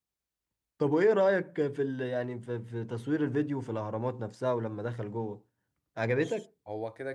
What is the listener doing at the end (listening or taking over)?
taking over